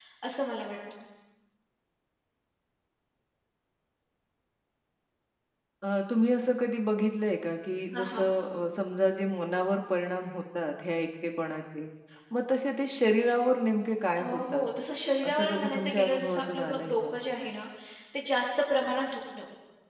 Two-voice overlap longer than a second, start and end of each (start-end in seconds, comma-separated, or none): 15.3-17.1